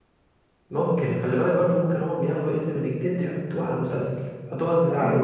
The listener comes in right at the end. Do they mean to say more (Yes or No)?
Yes